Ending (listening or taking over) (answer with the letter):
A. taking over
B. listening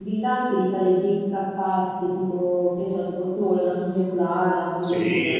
A